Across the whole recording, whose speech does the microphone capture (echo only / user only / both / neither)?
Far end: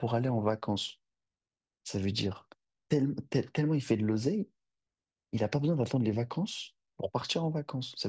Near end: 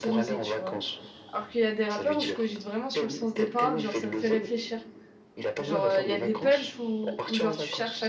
both